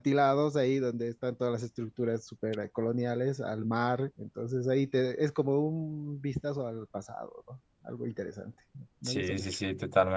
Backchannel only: No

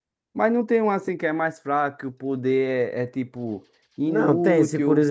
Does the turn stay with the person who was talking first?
No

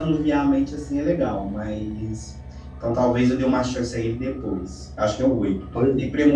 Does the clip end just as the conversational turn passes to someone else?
No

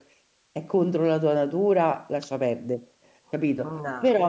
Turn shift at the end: No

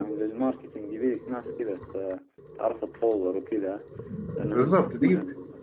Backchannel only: No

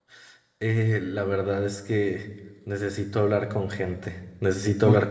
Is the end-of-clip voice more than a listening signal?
No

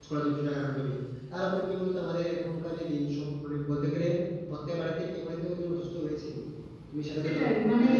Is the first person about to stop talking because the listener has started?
Yes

